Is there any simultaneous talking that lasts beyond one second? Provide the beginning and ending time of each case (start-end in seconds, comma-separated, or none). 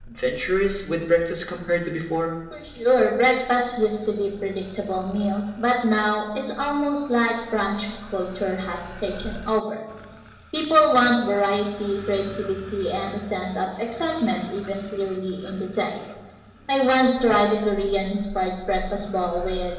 none